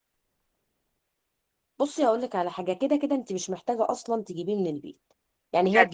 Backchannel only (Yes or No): Yes